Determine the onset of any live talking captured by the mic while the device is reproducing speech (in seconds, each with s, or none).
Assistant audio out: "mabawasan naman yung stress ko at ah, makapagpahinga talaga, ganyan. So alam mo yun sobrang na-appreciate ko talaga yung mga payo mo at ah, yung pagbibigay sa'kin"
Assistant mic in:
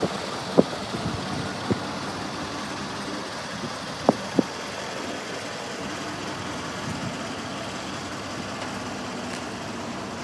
none